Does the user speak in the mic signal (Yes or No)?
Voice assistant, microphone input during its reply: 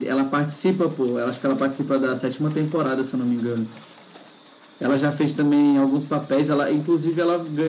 No